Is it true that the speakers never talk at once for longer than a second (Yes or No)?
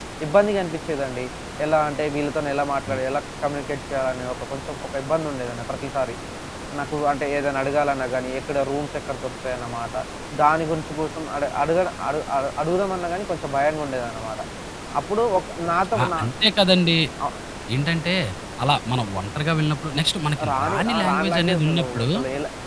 No